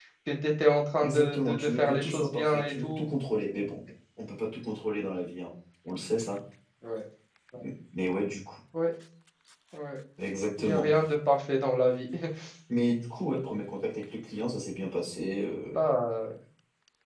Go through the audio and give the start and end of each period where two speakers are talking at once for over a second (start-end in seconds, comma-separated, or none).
1.0-3.1